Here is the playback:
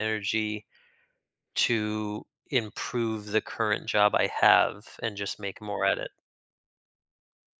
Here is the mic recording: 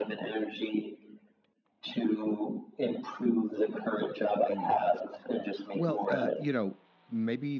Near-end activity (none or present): present